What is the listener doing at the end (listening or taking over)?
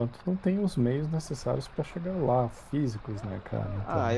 taking over